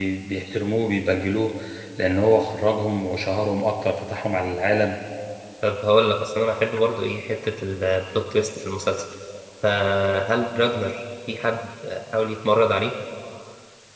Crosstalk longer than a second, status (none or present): none